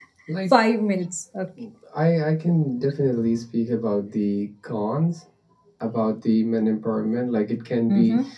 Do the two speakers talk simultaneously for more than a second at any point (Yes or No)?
No